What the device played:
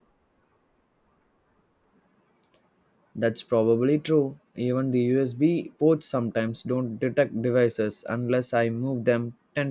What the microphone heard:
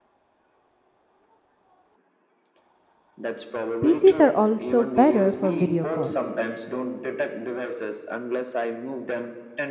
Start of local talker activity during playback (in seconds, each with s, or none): 3.8 s